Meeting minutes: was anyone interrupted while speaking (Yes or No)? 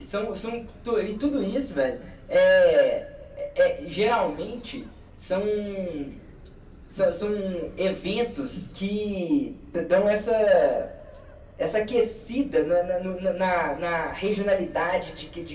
No